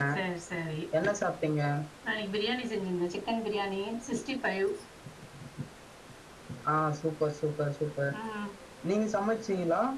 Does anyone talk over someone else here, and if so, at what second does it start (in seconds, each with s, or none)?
none